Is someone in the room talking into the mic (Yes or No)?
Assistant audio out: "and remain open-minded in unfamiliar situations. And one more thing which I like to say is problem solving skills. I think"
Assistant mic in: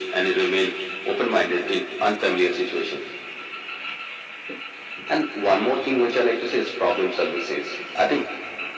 No